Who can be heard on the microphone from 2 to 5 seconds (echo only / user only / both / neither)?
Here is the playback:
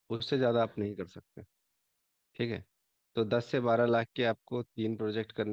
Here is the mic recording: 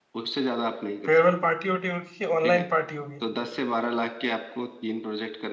both